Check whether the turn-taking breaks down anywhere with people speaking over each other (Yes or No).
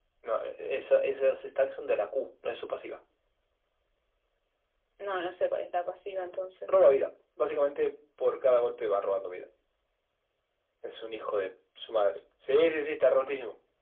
No